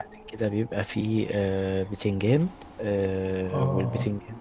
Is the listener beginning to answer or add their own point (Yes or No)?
No